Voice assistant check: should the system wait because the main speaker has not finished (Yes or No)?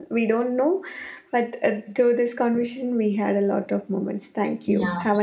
No